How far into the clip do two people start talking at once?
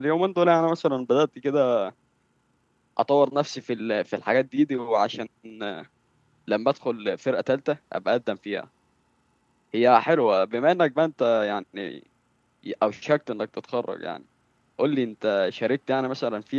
none

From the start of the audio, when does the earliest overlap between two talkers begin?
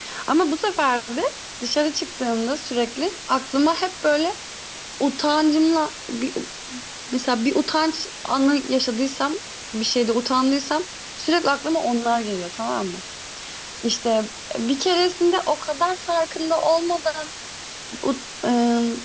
none

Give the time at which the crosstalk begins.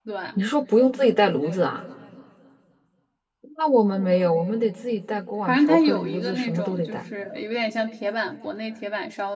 5.5 s

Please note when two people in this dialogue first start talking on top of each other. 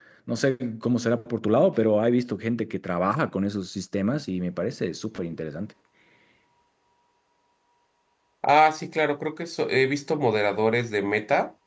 none

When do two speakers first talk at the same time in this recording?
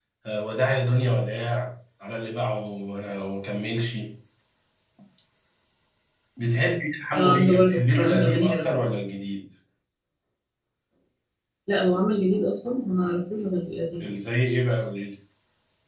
7.1 s

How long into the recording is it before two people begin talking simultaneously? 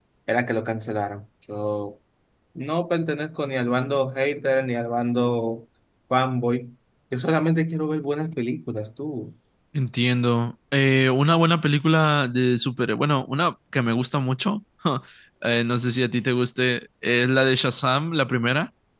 none

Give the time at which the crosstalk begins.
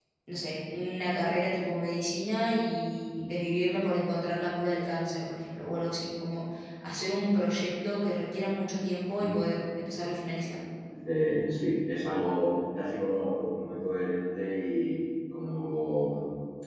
none

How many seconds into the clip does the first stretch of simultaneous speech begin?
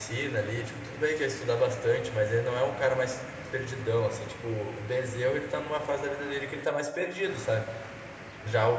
none

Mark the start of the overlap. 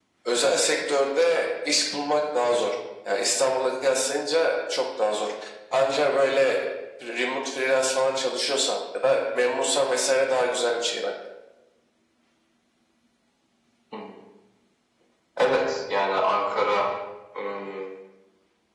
none

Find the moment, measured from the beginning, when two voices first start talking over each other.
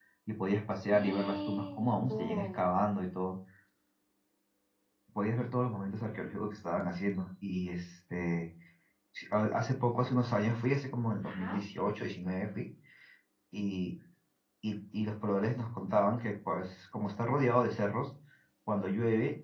0.9 s

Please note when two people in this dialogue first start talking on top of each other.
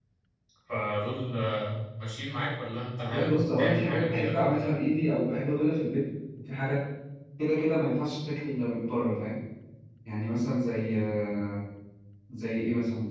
3.0 s

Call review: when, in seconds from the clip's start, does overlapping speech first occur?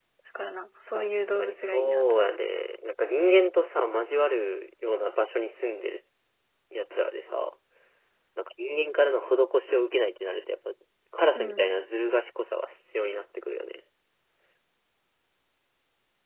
0.9 s

